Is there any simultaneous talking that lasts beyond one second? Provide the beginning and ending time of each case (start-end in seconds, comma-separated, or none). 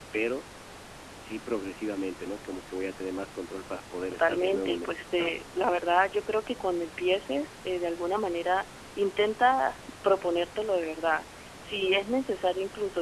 4.1-5.4